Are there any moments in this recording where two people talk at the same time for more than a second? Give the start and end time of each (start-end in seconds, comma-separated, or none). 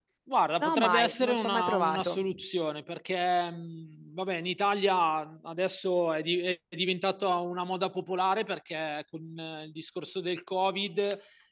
0.6-2.2